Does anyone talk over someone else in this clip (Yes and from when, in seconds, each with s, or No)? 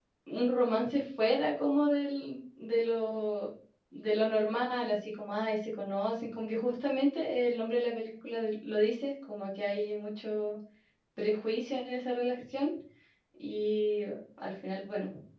No